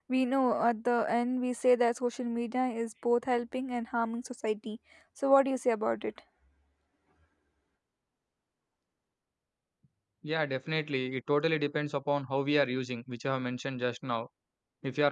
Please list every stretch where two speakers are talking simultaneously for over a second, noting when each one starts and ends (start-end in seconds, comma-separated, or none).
none